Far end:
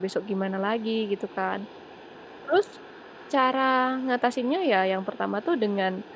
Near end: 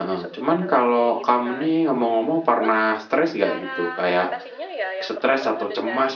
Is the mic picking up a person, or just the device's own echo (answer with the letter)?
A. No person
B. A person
B